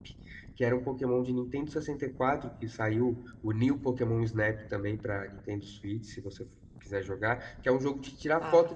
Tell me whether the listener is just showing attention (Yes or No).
Yes